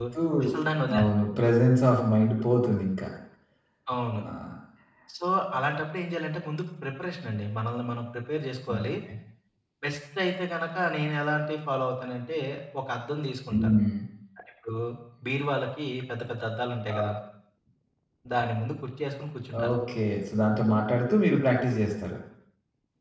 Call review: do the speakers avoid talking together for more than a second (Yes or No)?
Yes